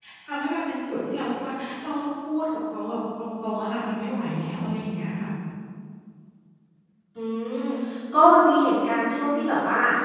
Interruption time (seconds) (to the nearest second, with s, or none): none